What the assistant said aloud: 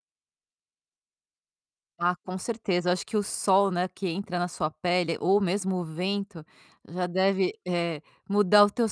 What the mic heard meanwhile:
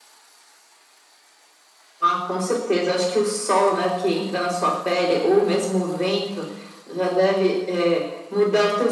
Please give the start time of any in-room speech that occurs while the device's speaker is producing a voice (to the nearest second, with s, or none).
none